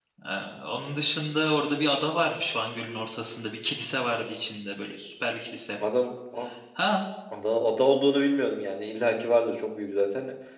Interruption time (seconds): none

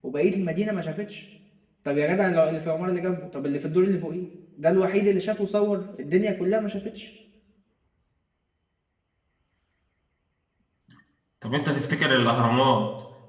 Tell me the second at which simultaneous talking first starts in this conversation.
none

